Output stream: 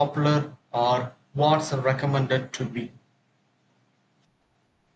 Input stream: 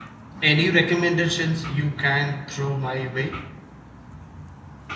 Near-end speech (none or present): present